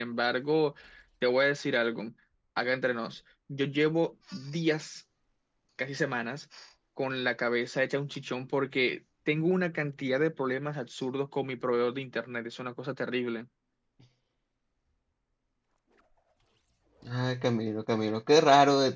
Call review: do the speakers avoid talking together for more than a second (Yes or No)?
Yes